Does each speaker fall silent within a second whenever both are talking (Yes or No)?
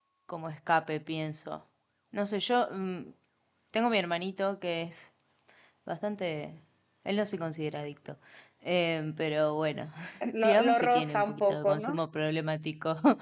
No